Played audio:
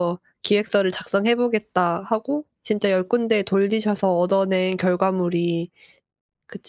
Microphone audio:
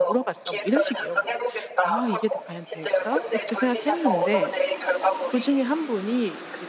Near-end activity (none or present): present